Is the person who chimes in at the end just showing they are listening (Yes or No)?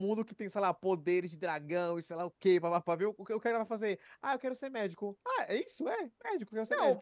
No